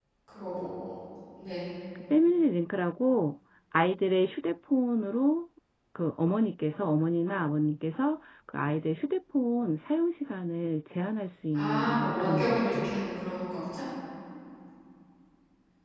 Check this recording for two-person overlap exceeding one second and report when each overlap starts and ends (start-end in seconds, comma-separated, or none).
11.5-12.9